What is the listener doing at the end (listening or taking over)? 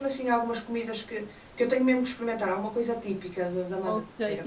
taking over